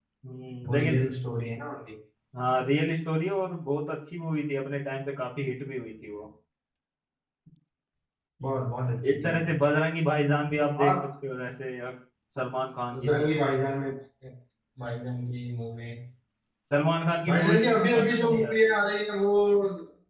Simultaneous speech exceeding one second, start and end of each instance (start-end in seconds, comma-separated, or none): 17.3-18.7